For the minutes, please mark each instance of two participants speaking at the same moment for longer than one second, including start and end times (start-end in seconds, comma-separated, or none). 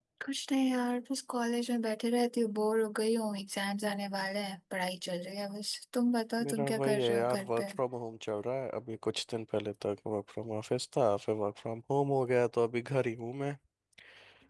6.4-7.7